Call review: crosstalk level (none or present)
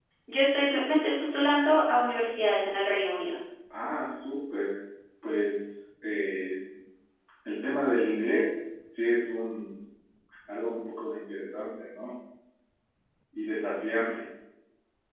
none